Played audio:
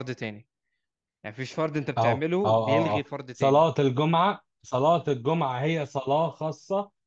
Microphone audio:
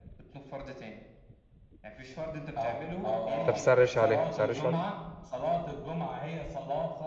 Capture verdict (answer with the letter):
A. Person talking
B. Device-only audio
A